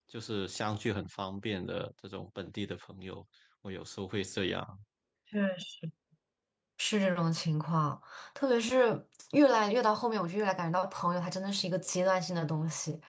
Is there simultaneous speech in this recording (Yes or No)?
No